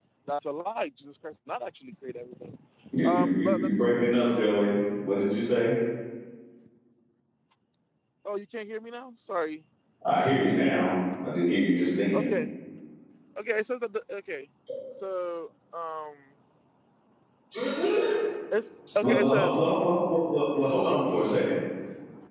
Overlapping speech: Yes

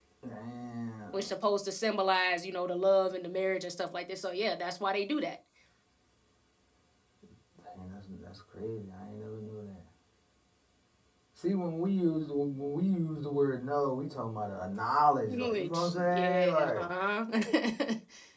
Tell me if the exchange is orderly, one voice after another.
No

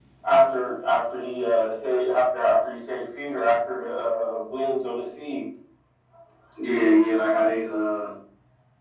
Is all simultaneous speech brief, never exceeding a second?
Yes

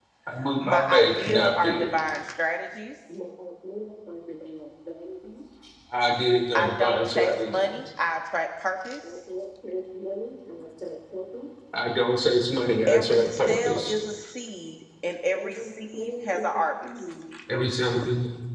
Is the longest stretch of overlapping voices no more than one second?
No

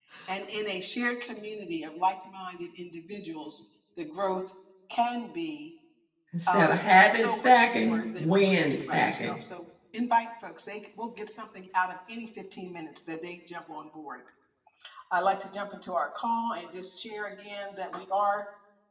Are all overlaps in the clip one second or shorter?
No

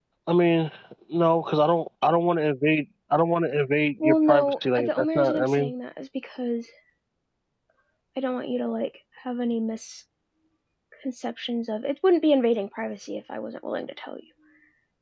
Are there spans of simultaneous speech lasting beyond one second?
Yes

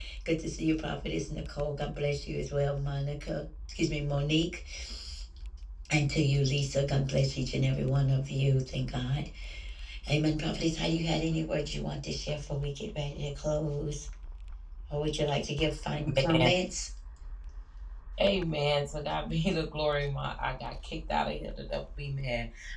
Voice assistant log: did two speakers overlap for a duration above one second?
No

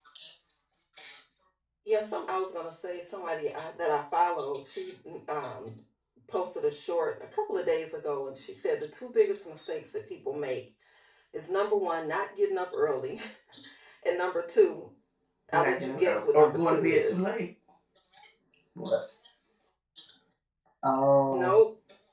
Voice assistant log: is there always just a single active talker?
No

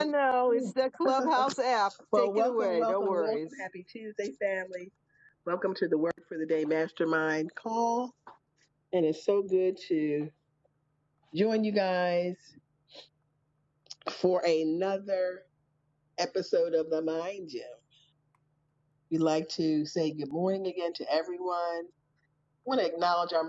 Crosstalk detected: Yes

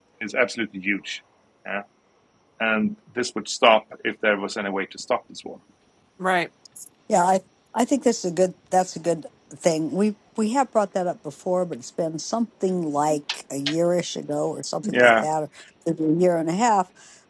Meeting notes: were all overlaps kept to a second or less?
Yes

